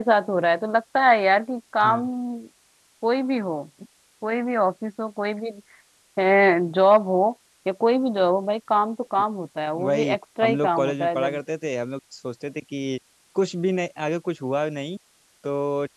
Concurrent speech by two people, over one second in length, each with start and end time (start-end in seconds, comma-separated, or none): 9.8-11.4